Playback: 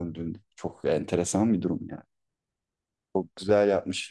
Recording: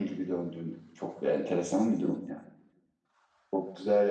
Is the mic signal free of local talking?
Yes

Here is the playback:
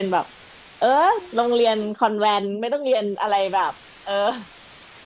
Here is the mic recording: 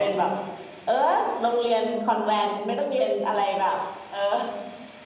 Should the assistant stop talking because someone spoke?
No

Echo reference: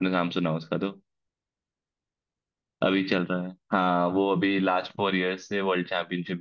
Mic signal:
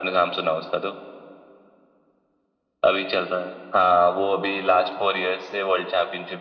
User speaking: No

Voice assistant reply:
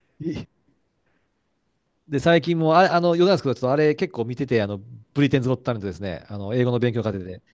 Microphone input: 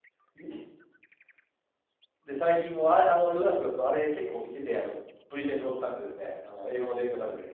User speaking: No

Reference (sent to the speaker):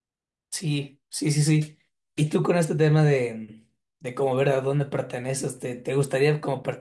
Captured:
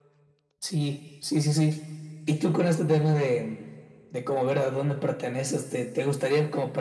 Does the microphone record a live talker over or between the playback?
No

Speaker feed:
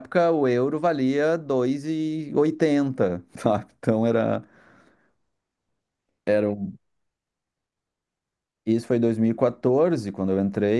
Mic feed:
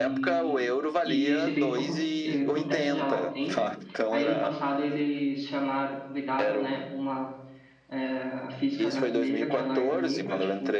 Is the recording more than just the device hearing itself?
Yes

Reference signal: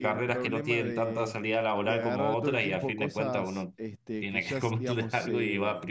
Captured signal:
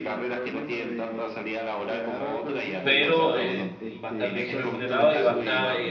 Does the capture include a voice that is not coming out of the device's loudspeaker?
Yes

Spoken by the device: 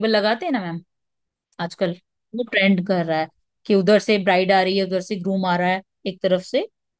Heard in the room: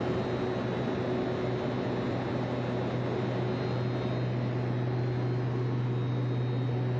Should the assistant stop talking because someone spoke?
No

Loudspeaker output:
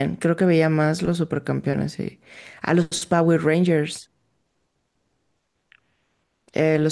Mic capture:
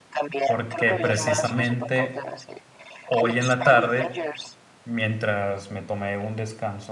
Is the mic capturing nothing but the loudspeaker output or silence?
No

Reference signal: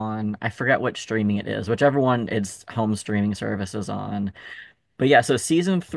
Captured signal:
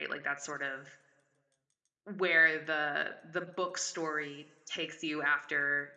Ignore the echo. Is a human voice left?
Yes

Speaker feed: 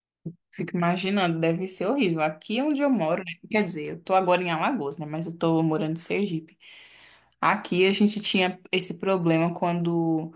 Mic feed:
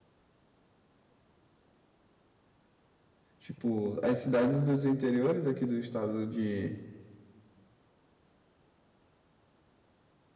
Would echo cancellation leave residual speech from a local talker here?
Yes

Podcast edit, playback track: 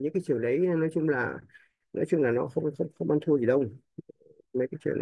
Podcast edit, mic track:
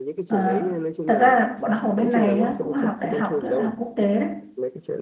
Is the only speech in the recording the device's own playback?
No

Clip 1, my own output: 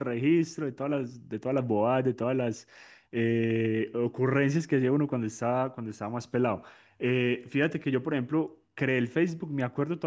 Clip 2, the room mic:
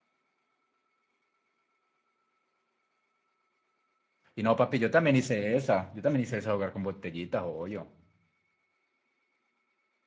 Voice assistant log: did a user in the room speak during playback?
Yes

